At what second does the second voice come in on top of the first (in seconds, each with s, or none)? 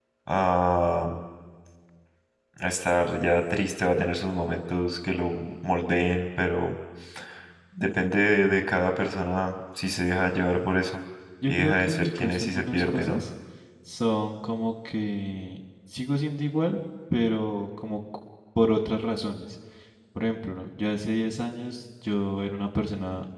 11.5 s